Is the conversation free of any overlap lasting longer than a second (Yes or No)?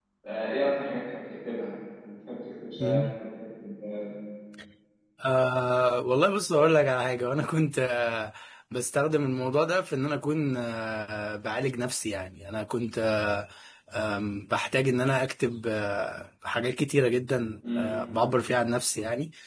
Yes